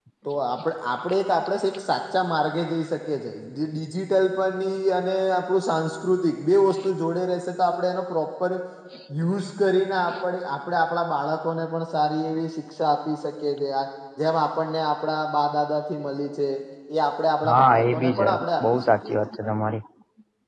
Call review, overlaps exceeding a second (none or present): present